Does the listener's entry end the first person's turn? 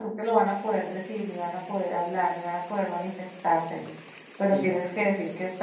No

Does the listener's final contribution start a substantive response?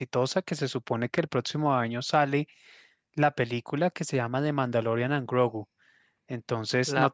No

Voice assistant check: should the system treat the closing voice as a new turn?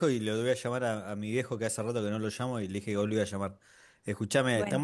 No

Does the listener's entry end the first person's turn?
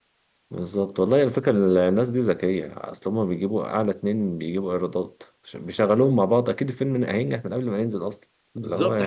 Yes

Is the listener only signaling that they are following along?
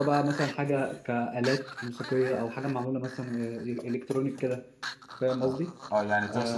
No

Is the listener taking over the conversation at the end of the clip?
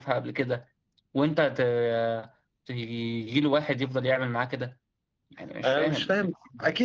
Yes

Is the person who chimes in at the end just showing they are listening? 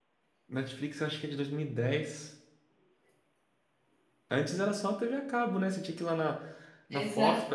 Yes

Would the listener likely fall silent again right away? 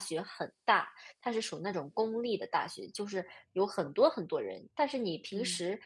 Yes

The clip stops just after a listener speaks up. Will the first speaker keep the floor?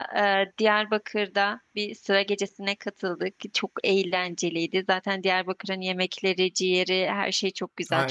No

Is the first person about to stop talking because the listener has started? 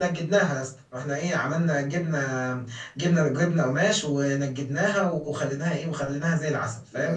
No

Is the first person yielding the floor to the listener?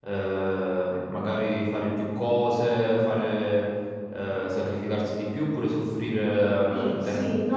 Yes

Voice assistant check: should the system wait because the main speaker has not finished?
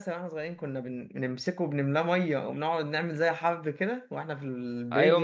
No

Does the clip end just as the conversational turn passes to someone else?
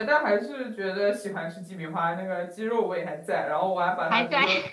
No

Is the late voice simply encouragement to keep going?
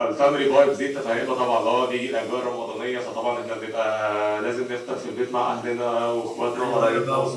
No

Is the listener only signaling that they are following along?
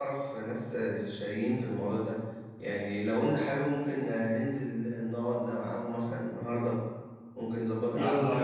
No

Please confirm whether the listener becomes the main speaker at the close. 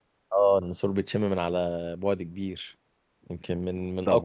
Yes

